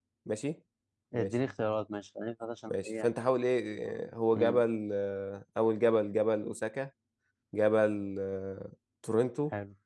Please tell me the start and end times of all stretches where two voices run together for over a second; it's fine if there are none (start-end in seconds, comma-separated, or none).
none